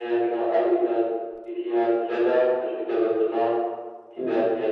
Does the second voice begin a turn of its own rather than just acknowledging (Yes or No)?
No